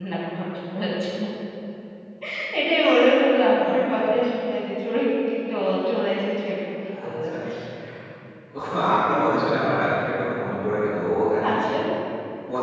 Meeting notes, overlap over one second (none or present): none